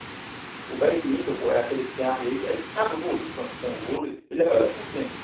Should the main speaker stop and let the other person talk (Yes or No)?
No